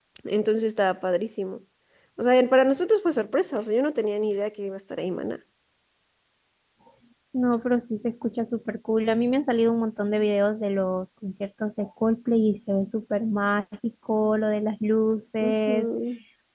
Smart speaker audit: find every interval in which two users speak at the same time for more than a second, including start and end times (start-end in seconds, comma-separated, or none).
none